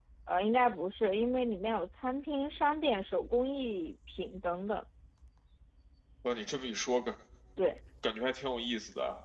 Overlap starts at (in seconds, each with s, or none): none